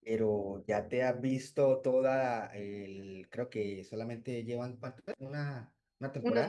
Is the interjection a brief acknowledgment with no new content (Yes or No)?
No